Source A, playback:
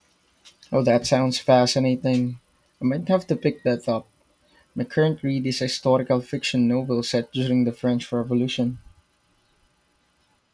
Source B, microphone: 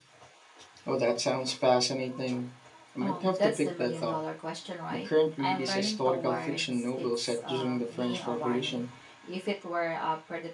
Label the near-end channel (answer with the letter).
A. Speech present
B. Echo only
A